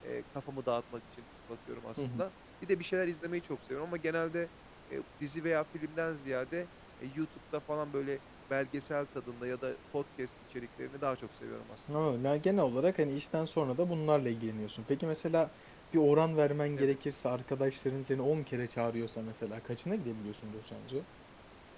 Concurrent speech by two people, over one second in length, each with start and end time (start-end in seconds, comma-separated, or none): none